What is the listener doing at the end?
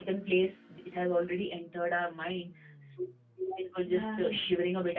listening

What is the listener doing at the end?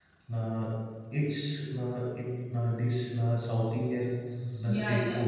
taking over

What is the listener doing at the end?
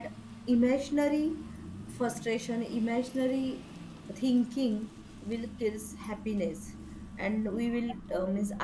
listening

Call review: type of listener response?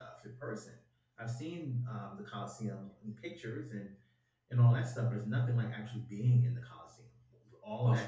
listening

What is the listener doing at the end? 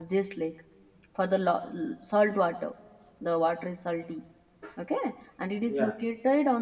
listening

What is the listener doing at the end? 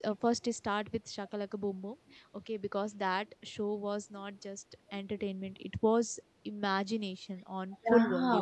taking over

